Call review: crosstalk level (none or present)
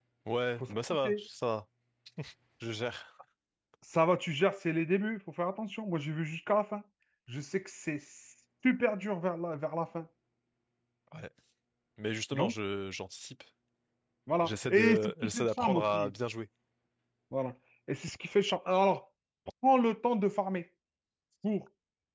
present